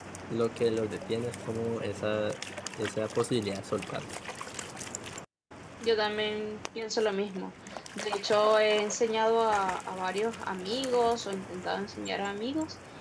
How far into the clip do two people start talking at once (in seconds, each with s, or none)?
none